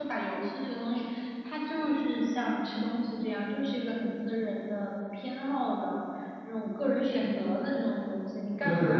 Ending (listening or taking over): listening